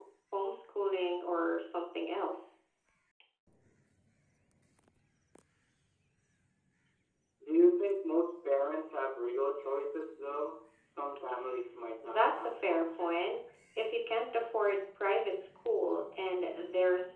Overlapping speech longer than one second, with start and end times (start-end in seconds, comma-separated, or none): 12.0-13.4